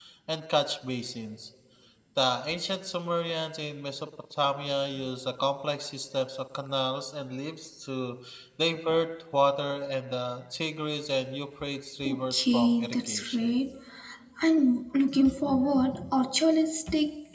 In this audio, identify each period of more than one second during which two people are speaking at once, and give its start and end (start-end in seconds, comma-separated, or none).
12.1-13.5